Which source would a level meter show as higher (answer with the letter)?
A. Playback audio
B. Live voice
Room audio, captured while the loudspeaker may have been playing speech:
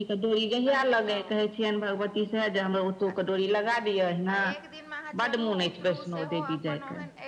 A